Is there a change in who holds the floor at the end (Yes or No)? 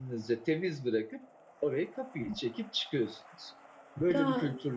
Yes